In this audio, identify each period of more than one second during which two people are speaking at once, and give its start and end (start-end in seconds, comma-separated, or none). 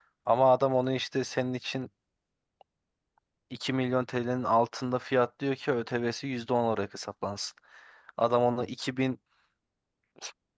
none